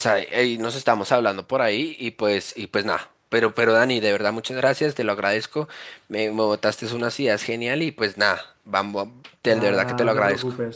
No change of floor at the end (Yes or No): No